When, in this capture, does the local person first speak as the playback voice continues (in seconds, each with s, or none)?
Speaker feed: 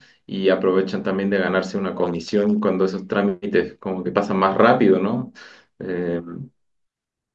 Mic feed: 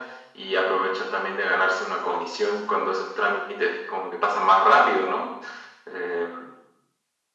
none